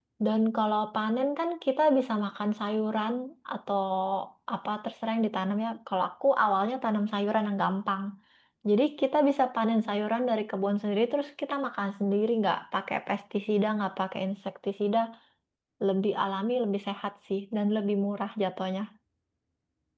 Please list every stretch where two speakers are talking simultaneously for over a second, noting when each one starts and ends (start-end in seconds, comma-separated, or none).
none